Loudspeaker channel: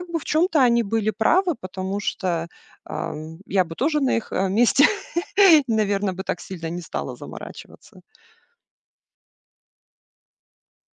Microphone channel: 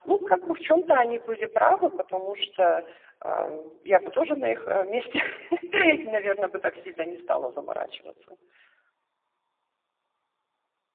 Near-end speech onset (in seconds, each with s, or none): none